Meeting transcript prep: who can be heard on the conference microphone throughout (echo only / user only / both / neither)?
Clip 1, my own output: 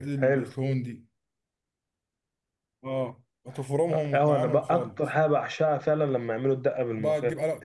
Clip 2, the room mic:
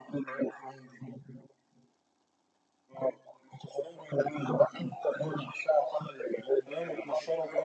both